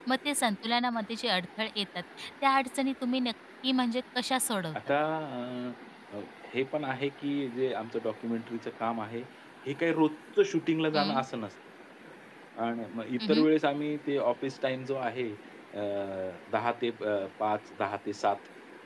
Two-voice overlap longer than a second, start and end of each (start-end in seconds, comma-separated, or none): none